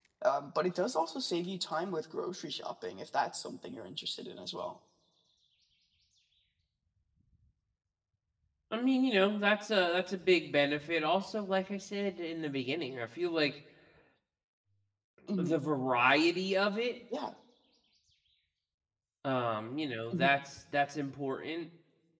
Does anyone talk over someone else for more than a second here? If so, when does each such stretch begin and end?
none

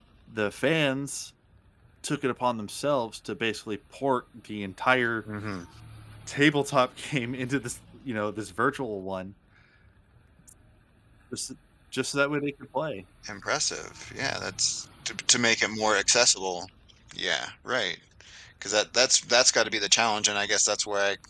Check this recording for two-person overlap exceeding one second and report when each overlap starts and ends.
none

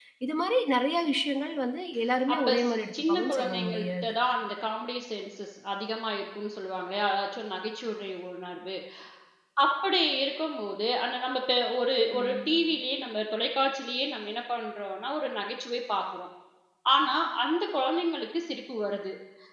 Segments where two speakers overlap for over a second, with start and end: 2.3-4.2

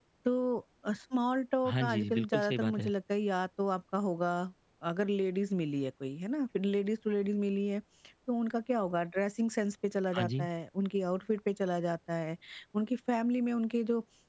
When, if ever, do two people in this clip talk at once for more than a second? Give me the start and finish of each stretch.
1.7-2.9

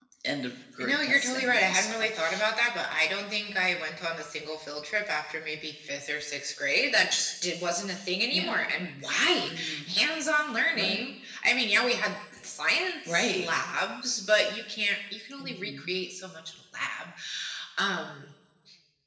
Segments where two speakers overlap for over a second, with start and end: 0.8-2.4

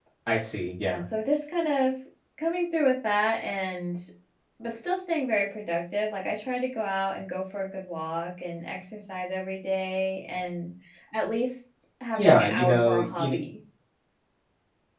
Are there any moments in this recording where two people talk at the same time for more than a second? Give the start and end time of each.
12.2-13.4

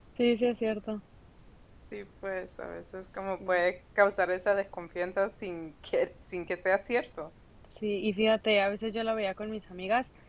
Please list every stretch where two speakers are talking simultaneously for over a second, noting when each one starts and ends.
none

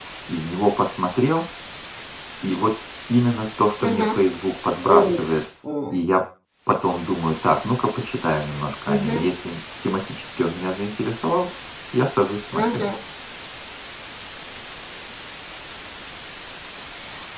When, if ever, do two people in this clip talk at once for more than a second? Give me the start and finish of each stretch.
none

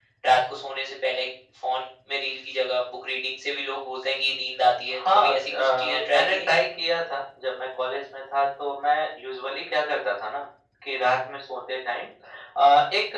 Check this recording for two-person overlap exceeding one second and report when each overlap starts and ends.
5.0-6.6

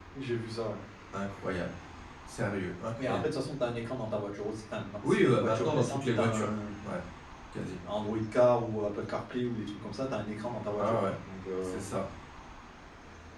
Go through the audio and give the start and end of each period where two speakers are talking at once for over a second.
5.0-6.5

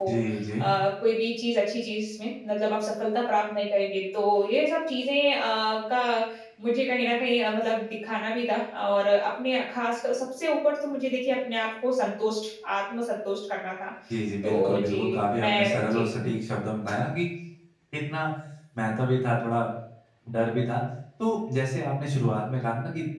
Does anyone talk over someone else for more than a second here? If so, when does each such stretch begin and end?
14.4-16.0

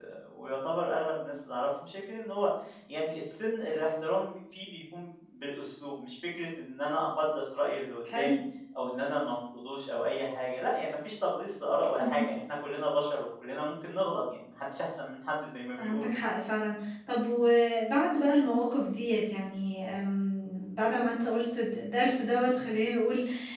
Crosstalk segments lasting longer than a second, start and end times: none

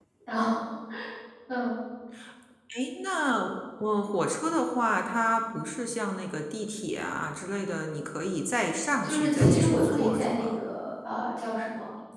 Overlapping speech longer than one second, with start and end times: 9.0-10.6

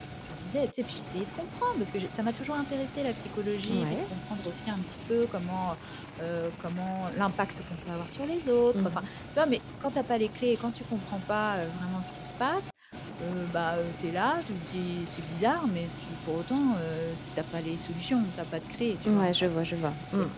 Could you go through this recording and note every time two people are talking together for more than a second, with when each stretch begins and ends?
none

